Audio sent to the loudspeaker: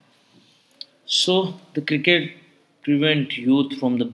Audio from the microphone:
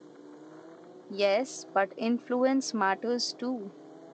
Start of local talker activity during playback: 1.1 s

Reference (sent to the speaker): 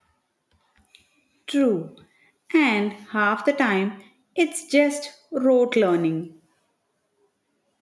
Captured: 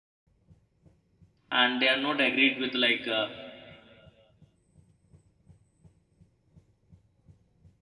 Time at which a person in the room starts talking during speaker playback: 1.5 s

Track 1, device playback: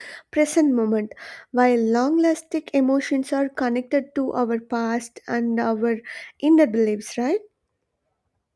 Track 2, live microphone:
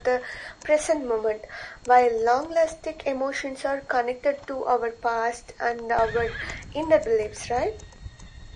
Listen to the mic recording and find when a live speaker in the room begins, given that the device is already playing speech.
none

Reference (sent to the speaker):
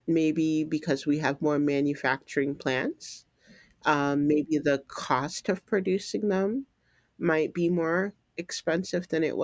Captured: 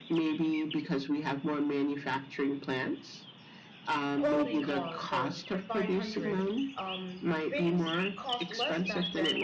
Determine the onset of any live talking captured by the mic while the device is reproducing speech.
4.1 s

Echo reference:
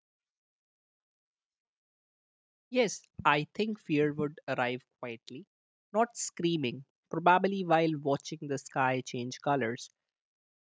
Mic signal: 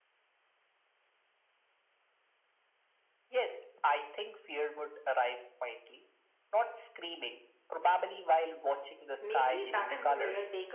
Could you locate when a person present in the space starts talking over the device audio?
9.2 s

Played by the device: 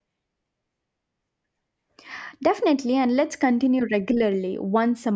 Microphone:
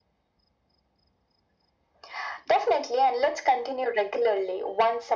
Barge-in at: none

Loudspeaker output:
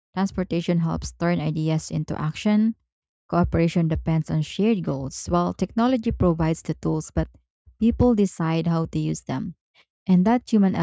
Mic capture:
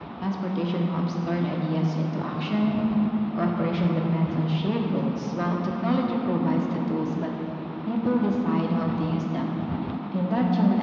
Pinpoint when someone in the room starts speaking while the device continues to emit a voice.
none

